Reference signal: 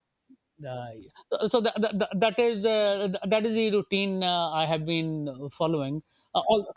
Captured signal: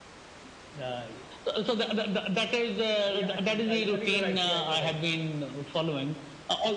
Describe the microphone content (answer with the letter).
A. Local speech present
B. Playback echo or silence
A